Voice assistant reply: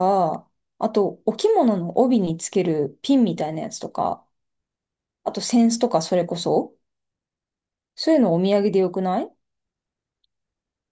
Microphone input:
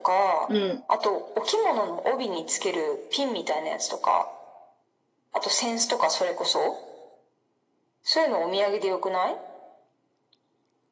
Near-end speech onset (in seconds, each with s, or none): 0.5 s